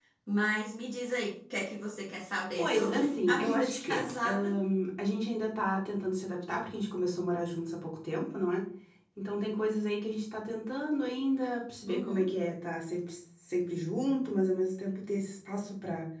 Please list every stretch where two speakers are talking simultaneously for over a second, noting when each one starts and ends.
2.6-4.5

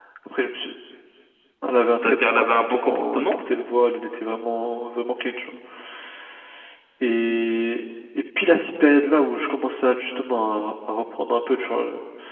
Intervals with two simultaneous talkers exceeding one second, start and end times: 2.0-3.4

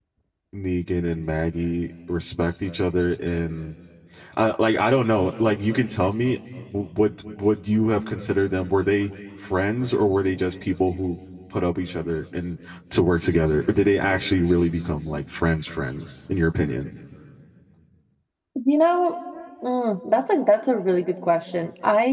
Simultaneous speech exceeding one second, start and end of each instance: none

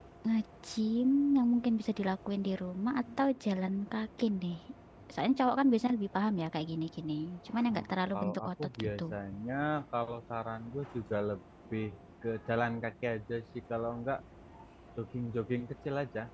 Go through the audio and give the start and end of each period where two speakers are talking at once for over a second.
7.7-9.0

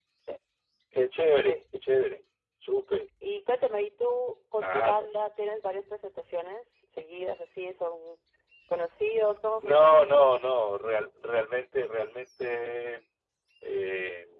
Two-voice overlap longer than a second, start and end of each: none

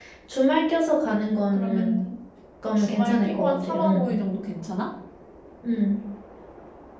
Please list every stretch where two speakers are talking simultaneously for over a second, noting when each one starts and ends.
2.8-4.1

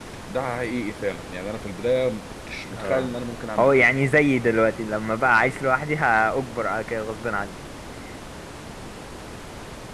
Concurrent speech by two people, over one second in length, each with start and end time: none

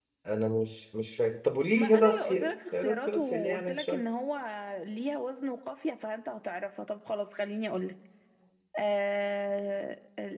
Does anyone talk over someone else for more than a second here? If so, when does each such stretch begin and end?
1.8-4.0

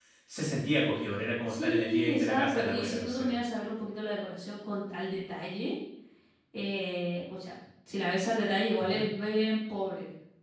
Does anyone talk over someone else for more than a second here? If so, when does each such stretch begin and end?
1.5-3.4

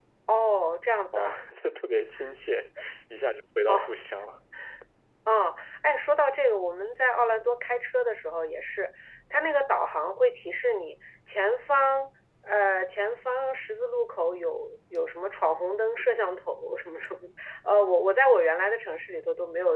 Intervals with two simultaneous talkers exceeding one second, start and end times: none

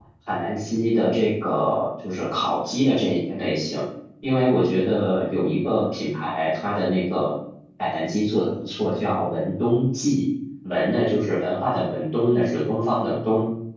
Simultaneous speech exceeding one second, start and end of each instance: none

